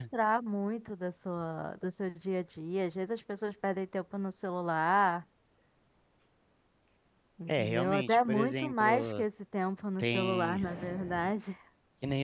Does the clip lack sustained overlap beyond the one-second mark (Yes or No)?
No